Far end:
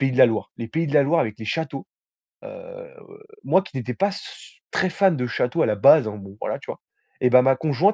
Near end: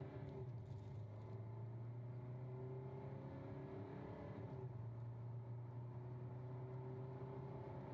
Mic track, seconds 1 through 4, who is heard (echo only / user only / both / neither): neither